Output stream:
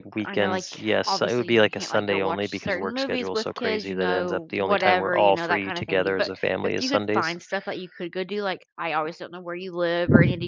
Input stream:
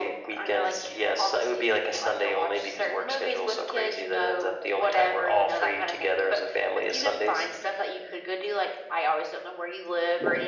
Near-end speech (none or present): none